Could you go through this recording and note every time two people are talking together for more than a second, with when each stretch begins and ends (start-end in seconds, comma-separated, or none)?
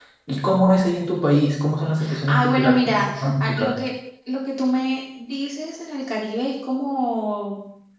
2.3-3.7